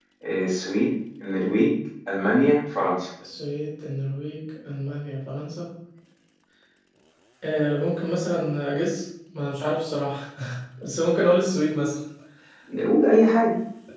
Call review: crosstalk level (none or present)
none